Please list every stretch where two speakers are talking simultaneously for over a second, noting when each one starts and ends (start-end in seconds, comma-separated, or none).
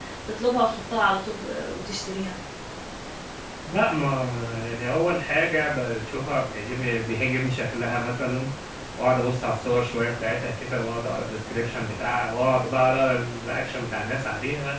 none